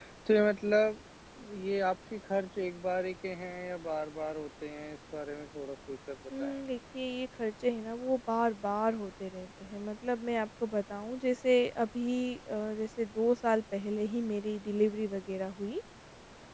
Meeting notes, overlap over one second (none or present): none